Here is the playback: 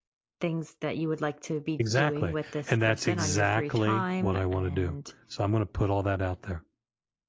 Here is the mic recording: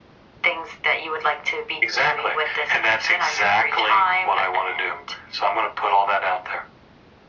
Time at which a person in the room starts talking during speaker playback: none

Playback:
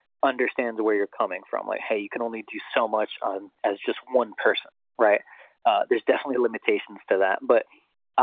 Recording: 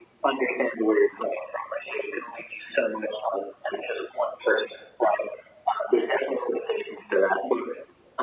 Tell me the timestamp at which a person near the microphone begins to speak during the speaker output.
none

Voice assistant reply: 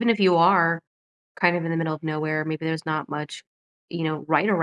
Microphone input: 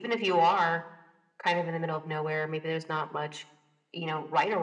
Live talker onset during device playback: none

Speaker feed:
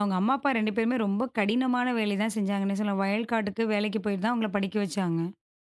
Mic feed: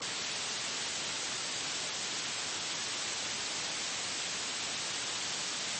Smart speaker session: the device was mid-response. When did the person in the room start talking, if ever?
none

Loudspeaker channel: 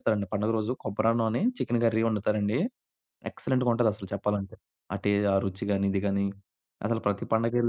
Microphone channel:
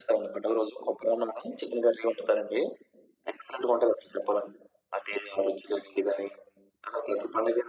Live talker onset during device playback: none

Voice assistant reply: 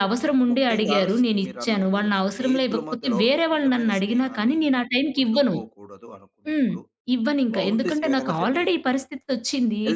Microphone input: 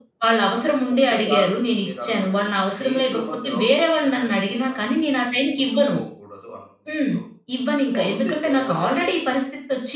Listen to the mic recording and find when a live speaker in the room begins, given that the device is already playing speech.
none

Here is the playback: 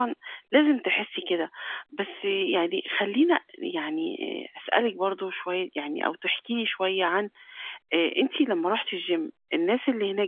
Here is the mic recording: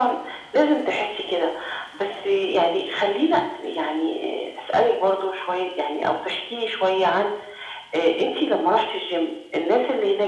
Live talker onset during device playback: none

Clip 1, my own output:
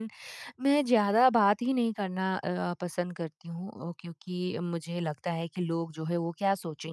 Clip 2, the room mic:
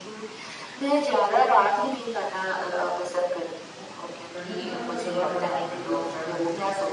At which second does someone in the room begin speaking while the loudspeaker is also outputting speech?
4.3 s

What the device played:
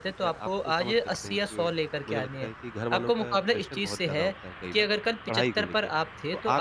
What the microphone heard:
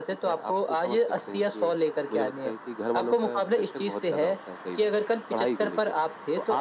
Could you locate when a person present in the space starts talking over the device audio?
none

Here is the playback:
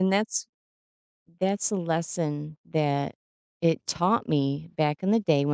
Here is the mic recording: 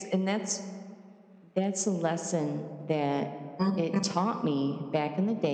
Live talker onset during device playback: 3.6 s

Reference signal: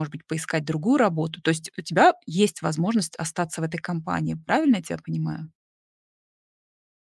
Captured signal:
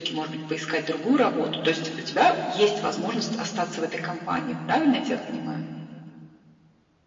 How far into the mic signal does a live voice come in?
none

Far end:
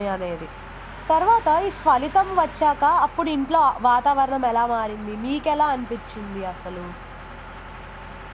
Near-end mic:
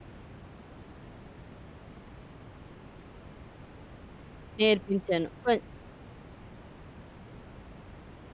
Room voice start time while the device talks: 4.6 s

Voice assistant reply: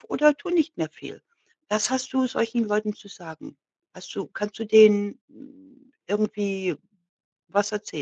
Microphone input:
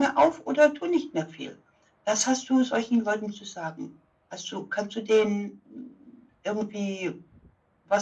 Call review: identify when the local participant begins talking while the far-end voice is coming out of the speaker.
none

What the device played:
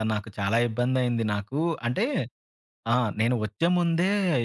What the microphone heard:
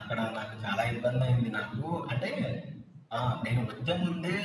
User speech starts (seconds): none

